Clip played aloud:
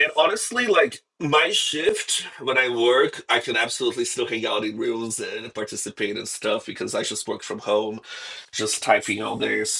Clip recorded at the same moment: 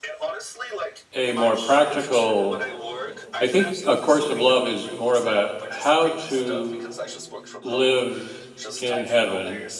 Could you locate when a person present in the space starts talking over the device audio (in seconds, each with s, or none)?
1.1 s